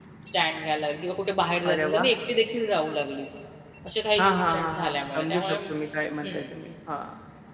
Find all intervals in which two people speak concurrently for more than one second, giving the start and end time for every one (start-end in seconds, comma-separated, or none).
4.2-5.5